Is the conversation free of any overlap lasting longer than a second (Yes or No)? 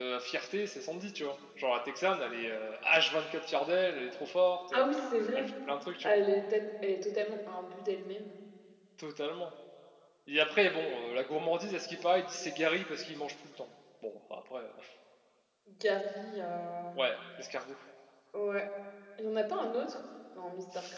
Yes